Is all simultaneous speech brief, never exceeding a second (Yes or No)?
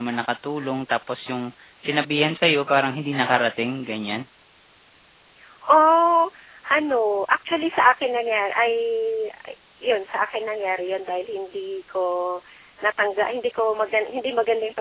Yes